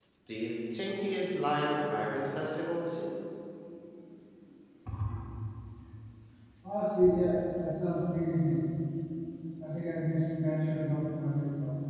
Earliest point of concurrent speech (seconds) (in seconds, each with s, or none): none